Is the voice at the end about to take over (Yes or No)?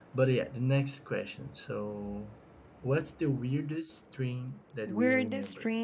Yes